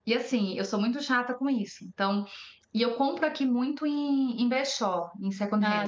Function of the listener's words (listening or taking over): listening